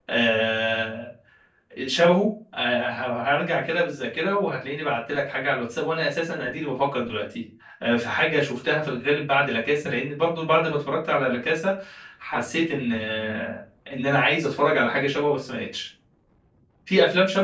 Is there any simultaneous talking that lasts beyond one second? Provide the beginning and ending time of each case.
none

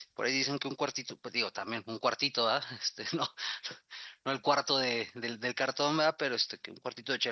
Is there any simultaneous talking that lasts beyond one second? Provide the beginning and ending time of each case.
none

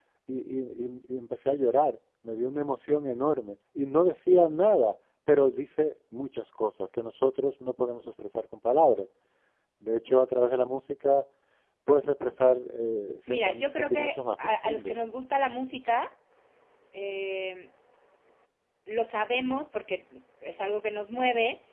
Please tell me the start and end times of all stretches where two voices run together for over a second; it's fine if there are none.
13.3-15.0

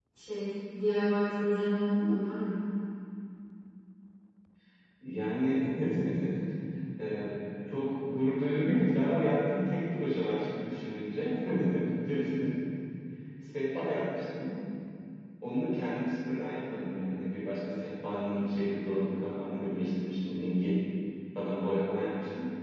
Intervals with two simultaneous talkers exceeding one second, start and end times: none

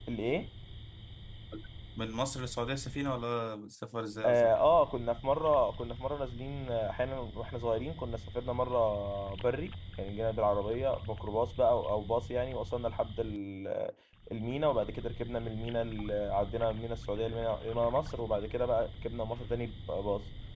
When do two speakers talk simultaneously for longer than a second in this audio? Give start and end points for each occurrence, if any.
none

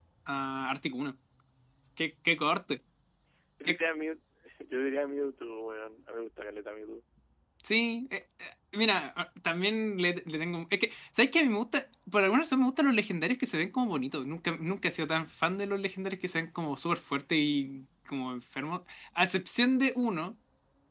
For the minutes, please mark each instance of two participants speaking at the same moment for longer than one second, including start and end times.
none

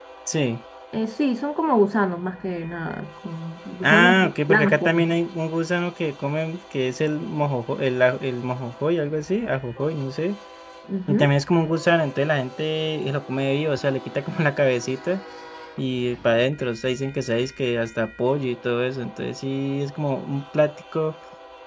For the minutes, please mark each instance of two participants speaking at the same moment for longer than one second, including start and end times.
3.9-5.1

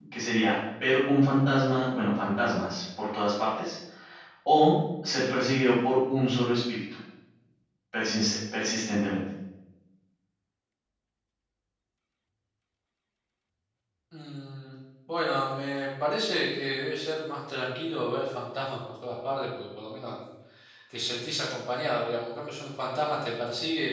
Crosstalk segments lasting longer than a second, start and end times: none

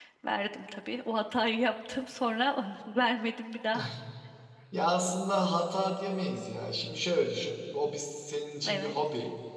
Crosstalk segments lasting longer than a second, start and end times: none

